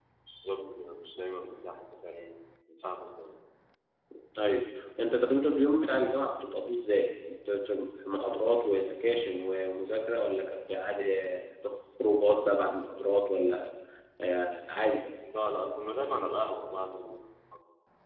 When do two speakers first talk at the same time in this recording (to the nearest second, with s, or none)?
none